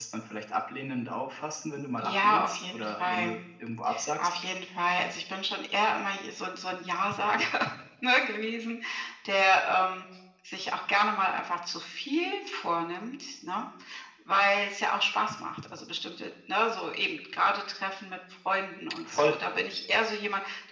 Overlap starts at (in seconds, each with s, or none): 2.0 s